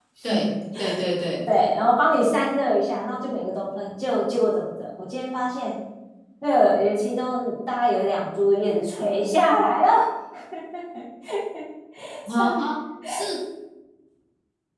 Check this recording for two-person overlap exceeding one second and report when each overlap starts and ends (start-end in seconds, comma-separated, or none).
none